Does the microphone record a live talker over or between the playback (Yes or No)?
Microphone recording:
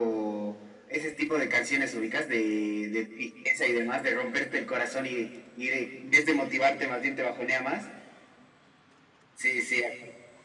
No